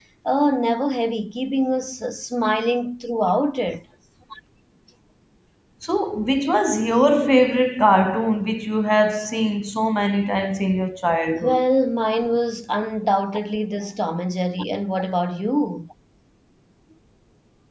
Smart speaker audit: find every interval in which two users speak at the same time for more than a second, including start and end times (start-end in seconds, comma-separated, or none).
none